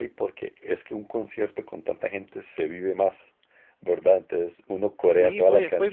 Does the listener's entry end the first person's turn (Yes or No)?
Yes